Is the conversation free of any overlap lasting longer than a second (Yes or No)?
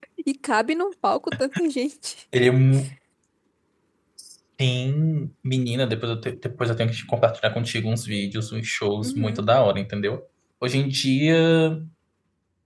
Yes